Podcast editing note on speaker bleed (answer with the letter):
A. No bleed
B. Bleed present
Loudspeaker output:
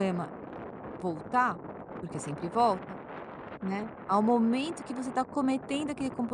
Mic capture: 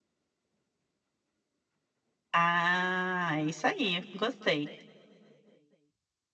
A